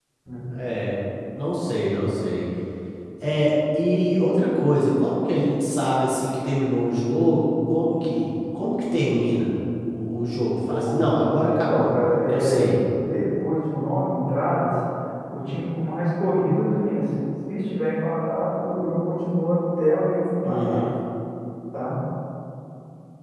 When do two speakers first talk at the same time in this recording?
10.7 s

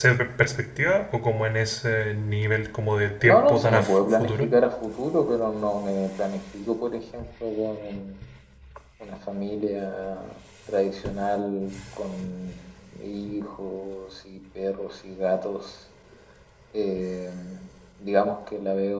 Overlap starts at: 3.2 s

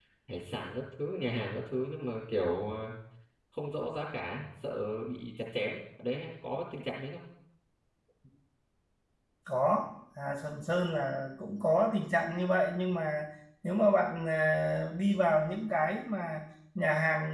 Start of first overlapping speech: none

